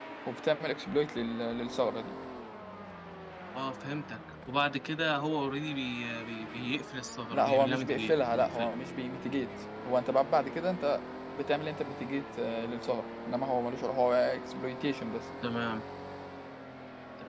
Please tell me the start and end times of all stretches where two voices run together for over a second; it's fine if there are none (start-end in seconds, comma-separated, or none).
7.3-8.7